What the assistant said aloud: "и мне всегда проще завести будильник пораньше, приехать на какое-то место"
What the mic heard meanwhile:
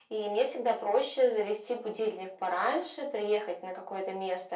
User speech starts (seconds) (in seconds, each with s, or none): none